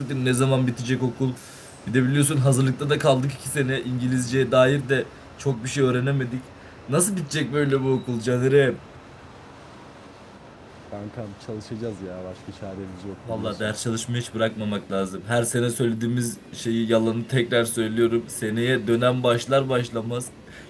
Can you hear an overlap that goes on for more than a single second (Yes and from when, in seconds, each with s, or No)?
No